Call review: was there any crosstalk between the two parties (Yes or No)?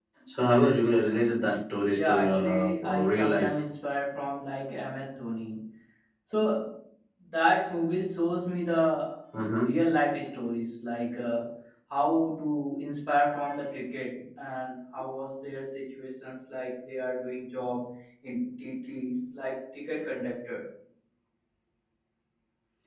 Yes